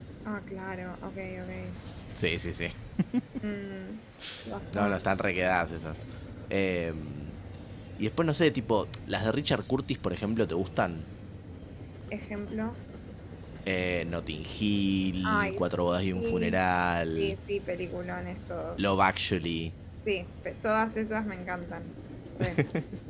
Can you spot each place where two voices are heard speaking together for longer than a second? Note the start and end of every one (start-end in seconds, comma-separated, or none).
15.2-16.6